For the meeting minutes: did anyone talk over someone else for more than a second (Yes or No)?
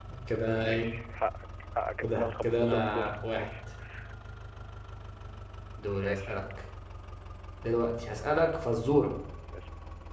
Yes